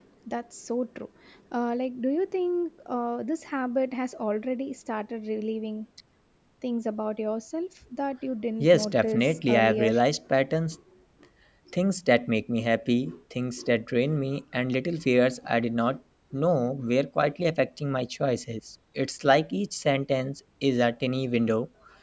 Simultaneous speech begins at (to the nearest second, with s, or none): 9 s